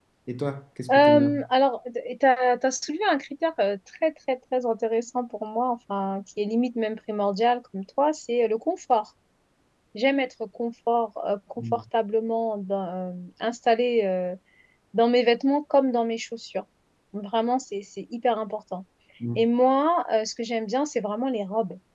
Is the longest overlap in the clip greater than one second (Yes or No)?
No